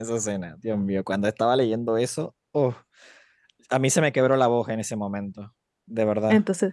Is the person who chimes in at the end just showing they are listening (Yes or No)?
No